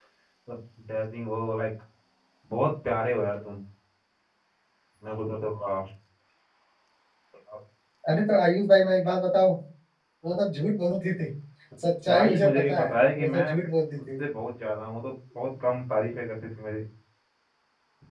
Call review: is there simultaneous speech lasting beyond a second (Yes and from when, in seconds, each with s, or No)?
Yes, from 12.1 s